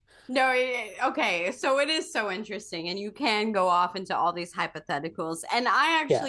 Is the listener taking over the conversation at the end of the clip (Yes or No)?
No